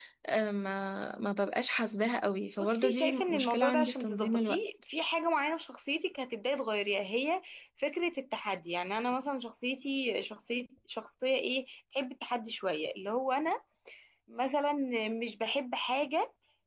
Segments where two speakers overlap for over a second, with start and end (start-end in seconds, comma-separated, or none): 2.6-4.6